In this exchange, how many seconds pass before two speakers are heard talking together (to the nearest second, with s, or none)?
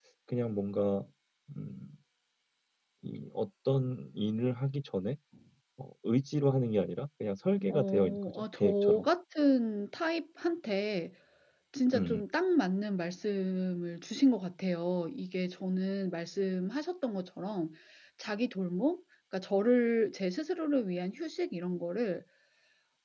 8 s